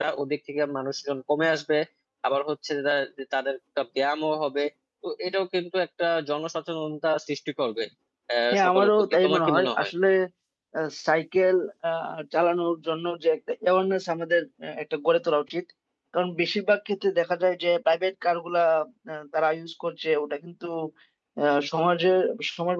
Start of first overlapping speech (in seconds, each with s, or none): 8.5 s